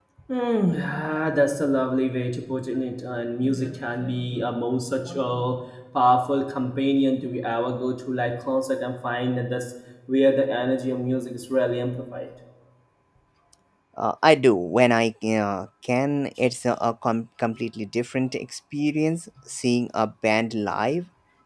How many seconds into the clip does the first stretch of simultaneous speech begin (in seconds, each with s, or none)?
none